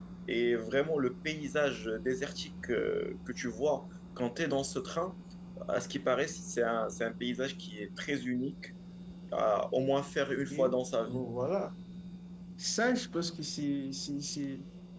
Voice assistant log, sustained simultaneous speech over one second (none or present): none